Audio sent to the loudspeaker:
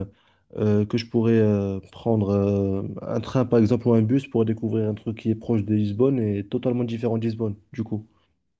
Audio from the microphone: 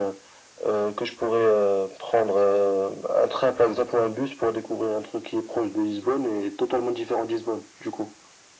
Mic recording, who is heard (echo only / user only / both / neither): echo only